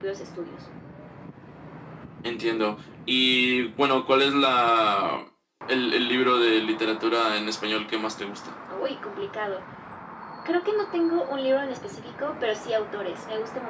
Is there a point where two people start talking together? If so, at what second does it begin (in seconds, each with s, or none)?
none